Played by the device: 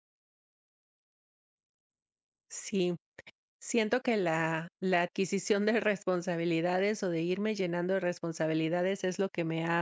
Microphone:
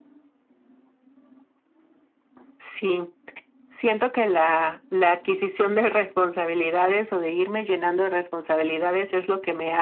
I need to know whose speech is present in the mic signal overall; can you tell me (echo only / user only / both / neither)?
echo only